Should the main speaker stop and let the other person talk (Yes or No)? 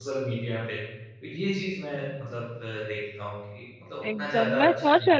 Yes